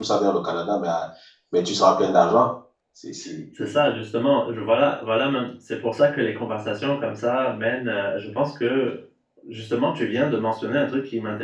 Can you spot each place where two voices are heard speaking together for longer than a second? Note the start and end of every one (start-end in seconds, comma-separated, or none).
none